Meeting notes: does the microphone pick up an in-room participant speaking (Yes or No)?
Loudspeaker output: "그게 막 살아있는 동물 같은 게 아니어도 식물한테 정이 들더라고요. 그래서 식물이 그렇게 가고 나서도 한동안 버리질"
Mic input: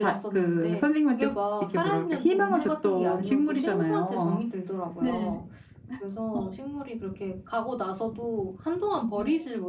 Yes